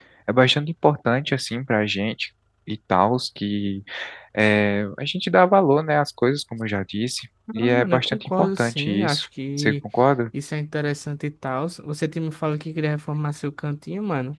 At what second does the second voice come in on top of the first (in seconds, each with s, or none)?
7.5 s